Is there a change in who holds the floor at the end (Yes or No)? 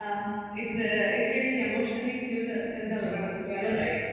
Yes